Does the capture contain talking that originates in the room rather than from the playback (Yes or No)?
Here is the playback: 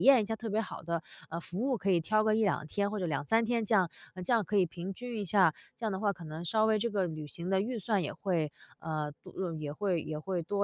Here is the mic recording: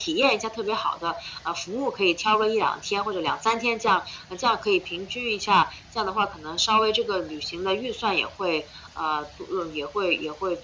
No